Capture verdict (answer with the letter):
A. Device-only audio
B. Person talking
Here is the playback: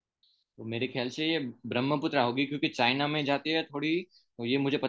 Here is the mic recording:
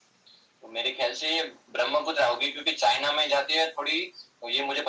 A